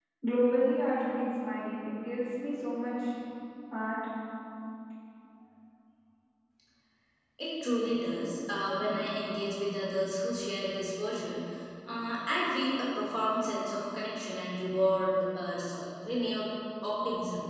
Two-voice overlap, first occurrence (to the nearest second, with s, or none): none